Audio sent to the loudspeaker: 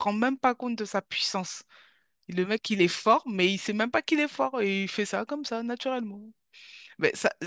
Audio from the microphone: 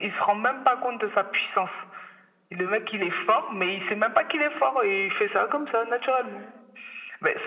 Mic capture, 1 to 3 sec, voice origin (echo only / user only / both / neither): echo only